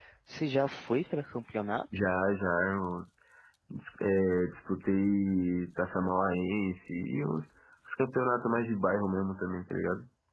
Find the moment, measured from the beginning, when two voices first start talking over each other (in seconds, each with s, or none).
none